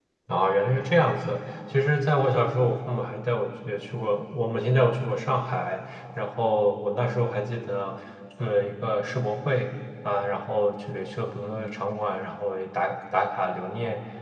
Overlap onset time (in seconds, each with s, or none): none